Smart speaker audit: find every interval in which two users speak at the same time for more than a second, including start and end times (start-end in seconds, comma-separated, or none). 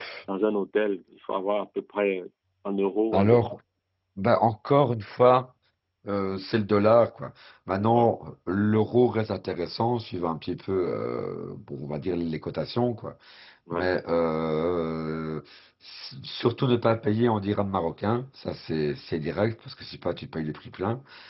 none